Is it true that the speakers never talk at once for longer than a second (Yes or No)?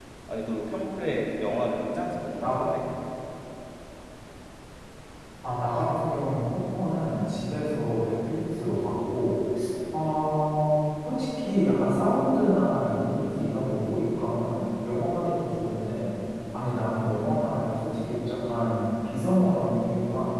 Yes